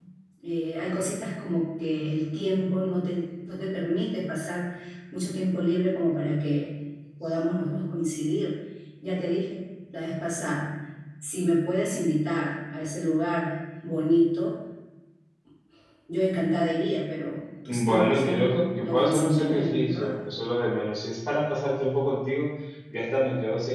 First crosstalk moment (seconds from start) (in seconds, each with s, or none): 17.7 s